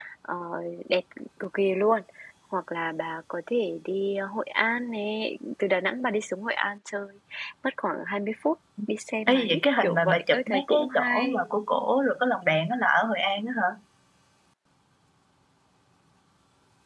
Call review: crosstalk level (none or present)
present